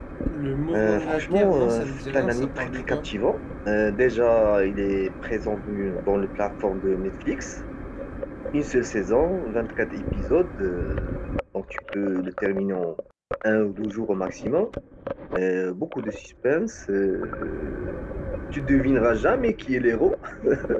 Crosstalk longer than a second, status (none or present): present